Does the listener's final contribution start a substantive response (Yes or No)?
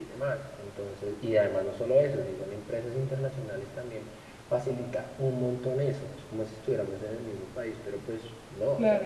Yes